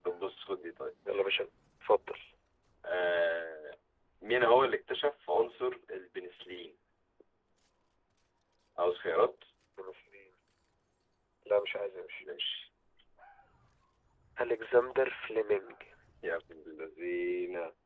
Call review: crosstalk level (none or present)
none